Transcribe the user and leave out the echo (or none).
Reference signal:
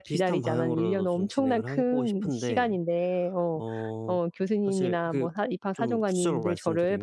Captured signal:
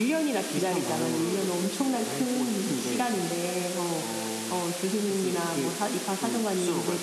none